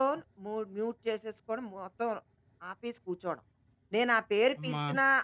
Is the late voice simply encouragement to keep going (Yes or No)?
Yes